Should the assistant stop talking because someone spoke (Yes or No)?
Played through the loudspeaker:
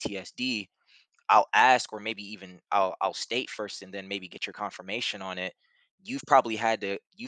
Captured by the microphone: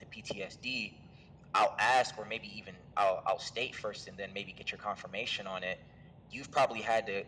No